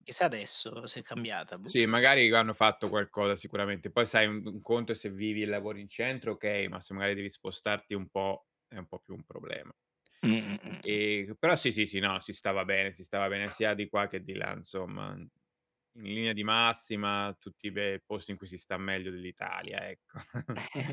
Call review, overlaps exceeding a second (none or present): none